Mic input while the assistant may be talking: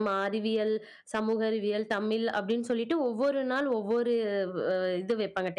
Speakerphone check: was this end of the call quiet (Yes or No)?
No